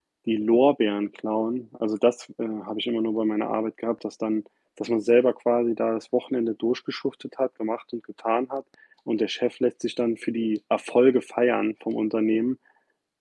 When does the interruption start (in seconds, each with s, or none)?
none